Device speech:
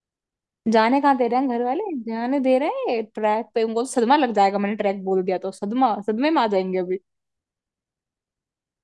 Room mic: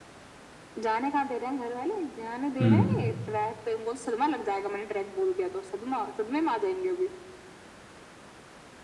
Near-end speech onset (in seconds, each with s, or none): 2.6 s